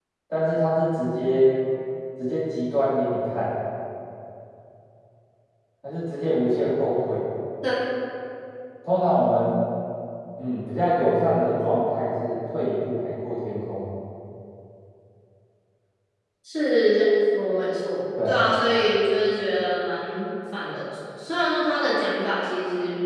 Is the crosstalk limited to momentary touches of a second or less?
Yes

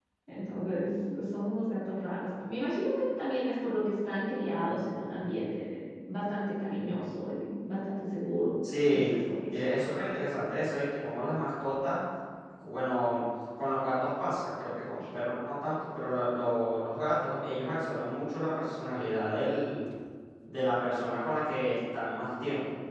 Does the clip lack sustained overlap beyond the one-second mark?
Yes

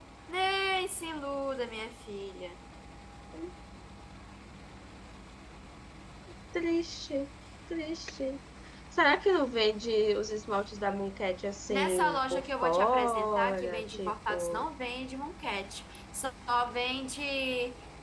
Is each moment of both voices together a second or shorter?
No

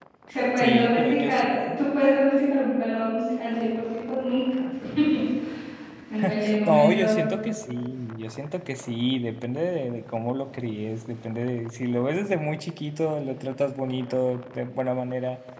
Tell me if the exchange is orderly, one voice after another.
No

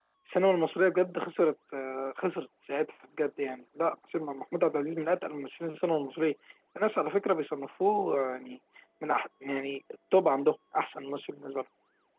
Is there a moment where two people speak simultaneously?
No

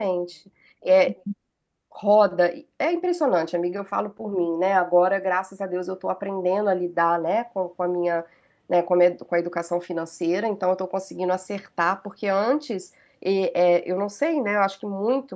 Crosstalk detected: No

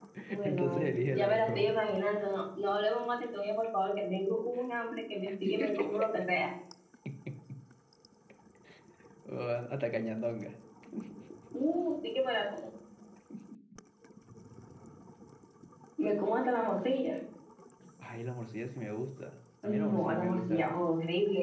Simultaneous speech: Yes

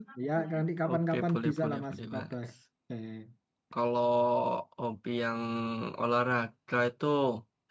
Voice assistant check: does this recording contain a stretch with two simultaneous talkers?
Yes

